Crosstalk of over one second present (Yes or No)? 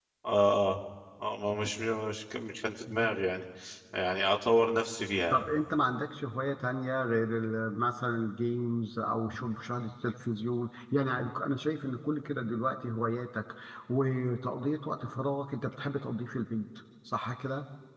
No